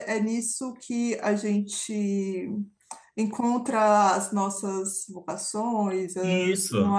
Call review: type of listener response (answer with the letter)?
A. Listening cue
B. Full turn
B